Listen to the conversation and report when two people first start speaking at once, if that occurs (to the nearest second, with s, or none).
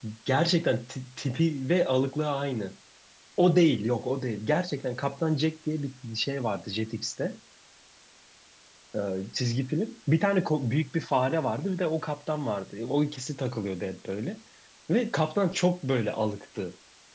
none